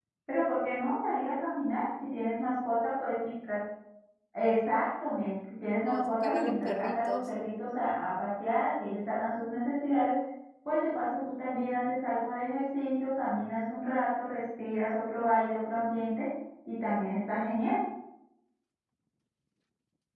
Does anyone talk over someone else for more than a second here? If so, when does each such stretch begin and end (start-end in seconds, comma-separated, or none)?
5.8-7.3